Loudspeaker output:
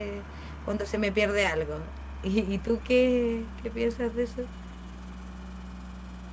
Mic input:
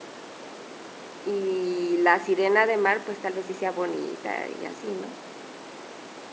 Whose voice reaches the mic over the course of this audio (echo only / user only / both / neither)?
user only